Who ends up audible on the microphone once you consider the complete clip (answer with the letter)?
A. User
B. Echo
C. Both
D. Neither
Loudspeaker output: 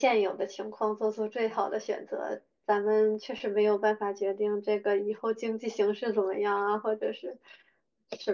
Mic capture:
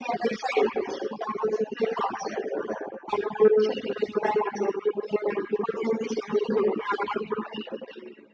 B